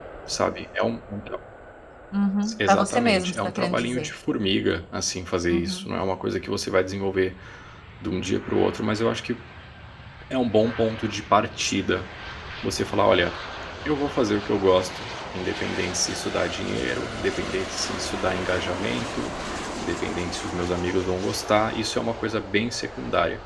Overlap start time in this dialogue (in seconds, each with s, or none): 2.7 s